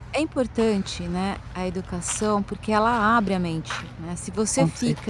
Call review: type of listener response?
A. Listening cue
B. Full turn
A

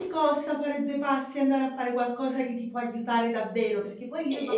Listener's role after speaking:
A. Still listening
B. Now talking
A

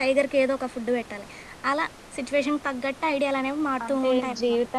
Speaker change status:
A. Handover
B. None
A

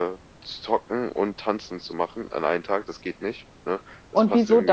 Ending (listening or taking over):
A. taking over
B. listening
A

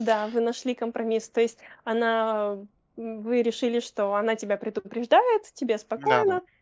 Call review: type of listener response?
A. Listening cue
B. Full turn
A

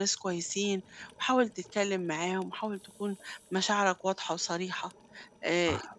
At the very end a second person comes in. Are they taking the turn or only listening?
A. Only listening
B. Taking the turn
A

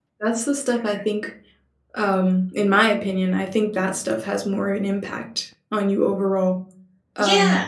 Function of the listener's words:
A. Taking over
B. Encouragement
B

